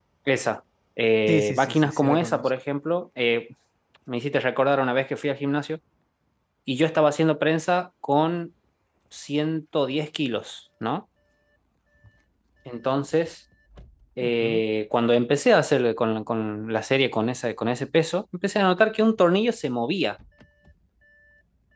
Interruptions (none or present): present